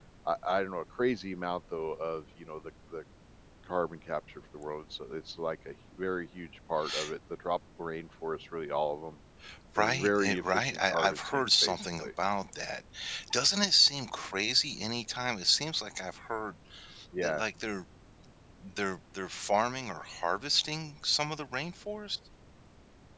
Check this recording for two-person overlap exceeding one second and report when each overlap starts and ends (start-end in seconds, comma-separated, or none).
9.8-12.1